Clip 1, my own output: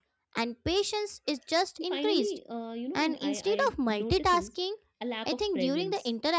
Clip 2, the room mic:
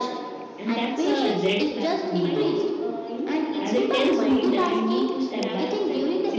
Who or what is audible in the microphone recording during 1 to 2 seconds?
both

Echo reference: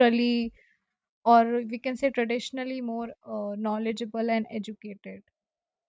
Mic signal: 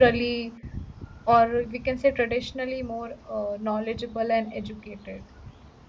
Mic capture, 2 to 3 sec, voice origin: echo only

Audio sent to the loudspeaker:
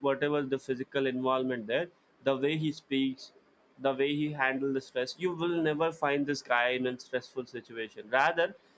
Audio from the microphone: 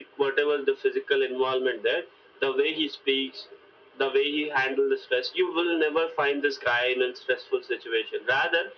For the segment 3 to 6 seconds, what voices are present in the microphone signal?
echo only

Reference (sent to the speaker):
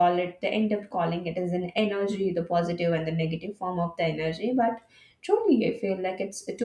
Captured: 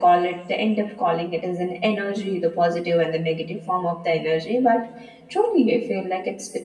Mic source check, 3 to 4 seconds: echo only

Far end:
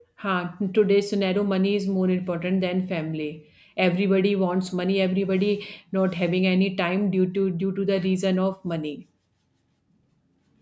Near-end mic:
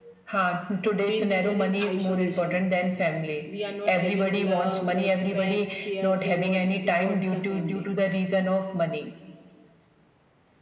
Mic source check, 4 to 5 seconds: both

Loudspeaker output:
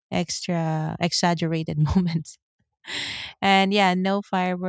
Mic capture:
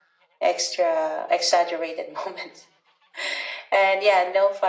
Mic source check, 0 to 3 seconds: echo only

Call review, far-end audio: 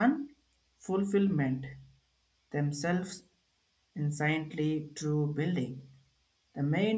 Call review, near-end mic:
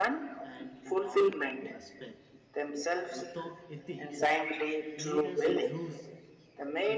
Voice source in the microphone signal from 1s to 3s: both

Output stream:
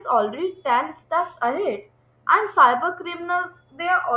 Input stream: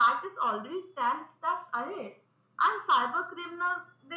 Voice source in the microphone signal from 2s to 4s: echo only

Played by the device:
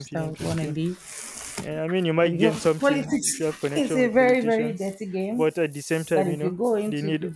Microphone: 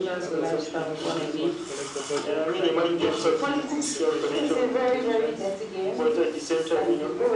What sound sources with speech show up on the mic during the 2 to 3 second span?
both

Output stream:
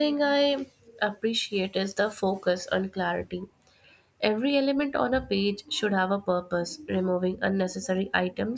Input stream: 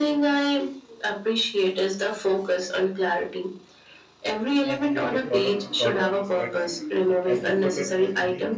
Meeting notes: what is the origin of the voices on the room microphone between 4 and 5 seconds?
both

